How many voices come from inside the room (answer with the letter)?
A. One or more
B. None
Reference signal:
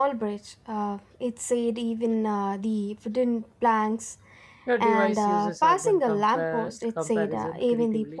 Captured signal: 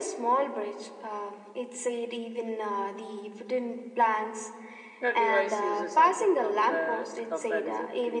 B